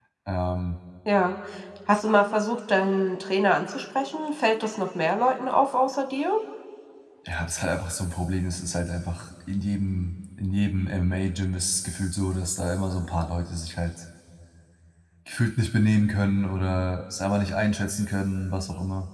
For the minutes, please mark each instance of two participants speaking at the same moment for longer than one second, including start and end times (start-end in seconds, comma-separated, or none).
none